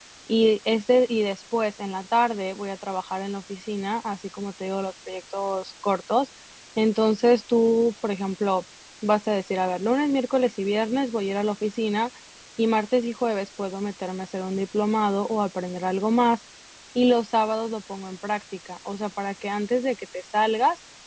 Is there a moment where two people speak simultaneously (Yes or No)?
No